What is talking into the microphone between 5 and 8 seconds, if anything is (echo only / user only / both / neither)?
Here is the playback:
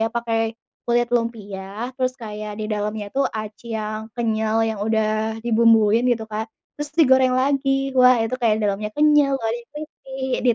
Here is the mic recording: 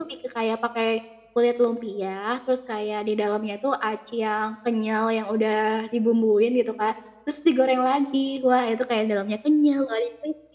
echo only